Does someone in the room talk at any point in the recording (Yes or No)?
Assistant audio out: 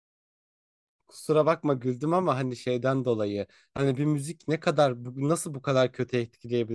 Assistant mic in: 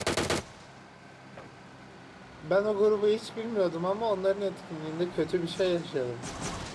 Yes